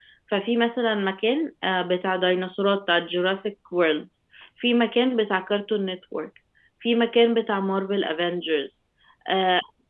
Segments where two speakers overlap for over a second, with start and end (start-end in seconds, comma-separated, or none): none